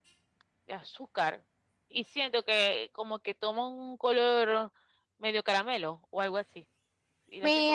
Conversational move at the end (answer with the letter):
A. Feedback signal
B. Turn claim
B